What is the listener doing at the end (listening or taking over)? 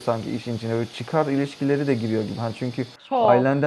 listening